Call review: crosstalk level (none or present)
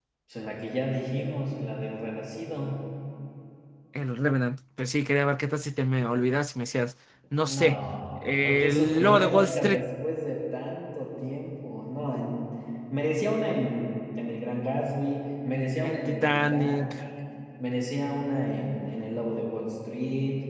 present